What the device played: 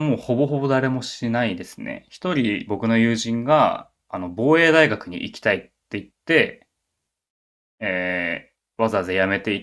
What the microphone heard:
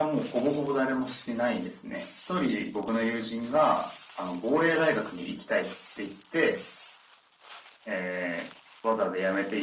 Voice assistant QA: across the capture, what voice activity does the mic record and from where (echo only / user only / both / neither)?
echo only